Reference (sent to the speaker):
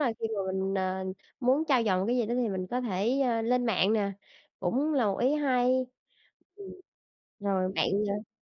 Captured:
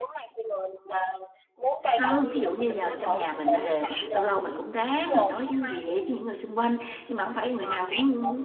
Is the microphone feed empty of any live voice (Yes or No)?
No